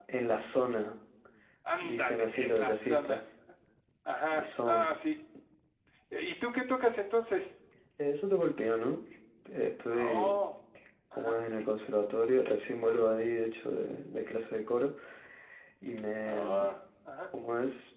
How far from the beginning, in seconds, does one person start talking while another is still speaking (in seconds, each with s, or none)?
1.8 s